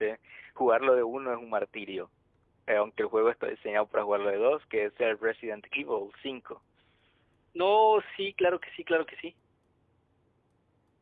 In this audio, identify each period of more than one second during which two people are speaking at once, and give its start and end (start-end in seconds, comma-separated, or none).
none